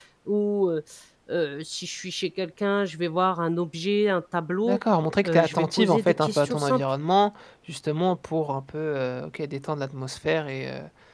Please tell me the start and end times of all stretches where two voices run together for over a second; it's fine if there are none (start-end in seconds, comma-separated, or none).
5.2-6.8